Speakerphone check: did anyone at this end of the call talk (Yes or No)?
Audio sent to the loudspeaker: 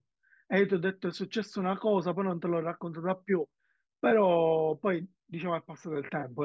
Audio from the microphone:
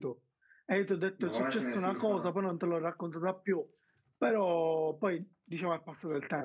Yes